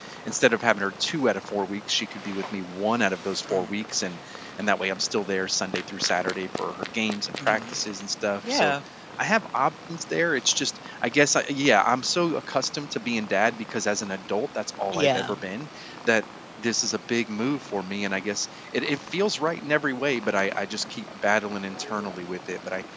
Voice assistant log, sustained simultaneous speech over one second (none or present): none